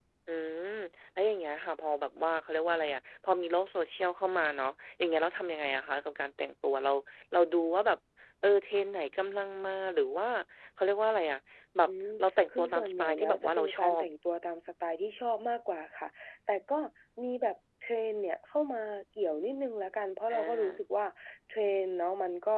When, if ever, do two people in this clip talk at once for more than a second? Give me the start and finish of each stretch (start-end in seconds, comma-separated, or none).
12.6-14.0